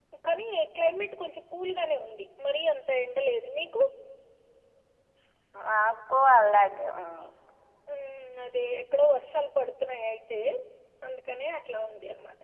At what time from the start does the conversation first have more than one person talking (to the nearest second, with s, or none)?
none